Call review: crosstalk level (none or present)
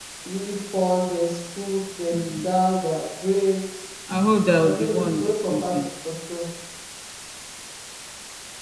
present